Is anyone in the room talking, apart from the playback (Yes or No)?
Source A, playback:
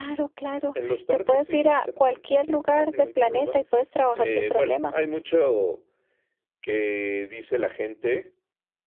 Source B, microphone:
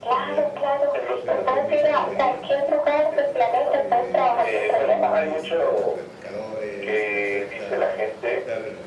Yes